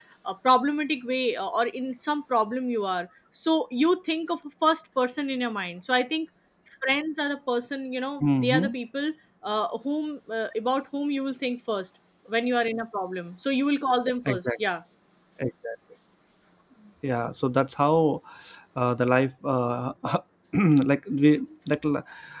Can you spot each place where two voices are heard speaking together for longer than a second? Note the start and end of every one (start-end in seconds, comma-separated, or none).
none